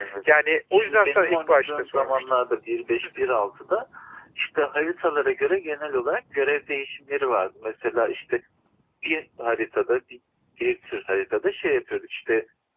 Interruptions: present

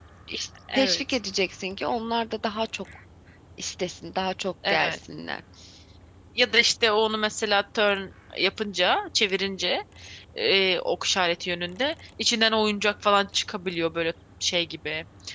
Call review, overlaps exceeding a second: none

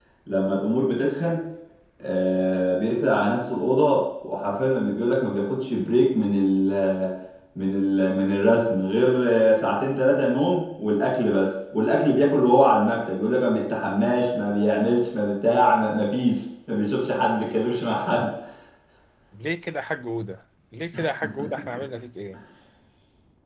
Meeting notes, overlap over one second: none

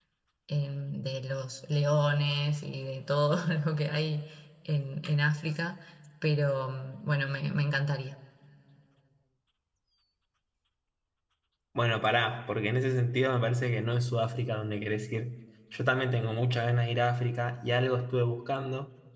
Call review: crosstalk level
none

